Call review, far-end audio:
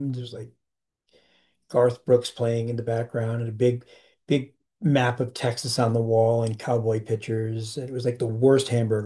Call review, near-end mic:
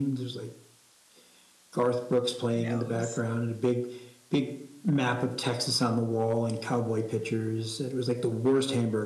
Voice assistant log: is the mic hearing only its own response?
No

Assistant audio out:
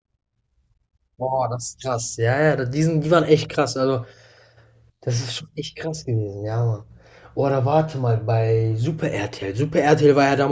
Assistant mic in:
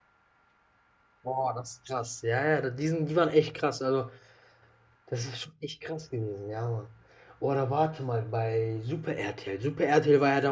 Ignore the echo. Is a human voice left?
No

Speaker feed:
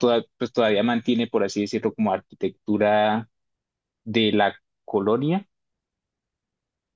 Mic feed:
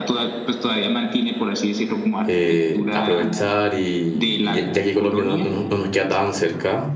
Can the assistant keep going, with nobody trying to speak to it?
No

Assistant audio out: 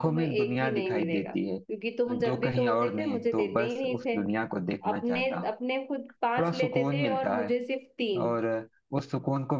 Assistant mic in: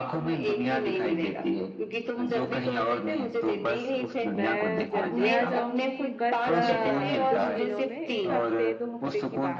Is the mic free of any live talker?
No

